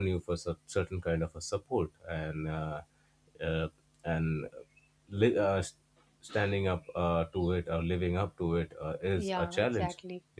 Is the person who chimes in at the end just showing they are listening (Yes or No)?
No